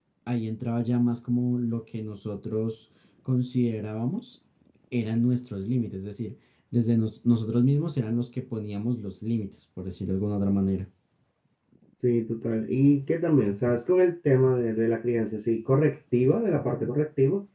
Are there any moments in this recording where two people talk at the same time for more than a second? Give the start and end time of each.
none

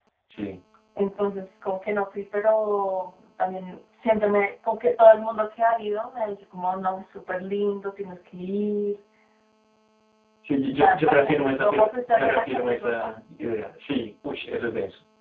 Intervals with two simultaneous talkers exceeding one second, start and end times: 10.8-13.1

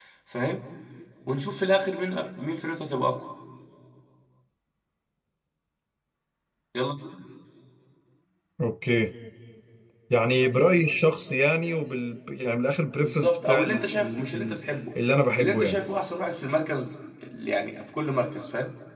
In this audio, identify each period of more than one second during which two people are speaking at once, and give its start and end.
13.0-14.6

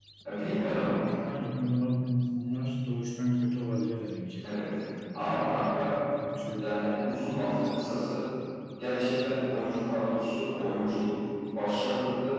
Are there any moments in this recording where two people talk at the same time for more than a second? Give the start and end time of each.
none

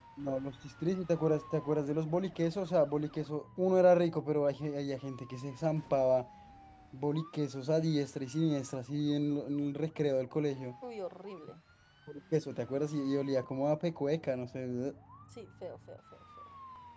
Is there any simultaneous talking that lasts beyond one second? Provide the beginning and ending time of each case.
none

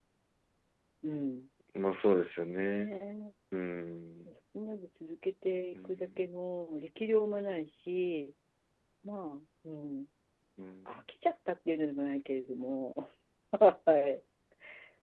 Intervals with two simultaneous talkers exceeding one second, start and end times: none

